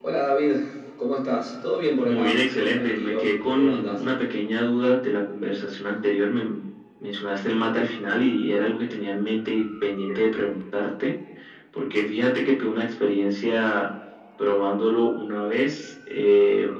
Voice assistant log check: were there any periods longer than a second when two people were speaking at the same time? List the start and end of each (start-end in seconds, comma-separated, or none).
2.0-4.0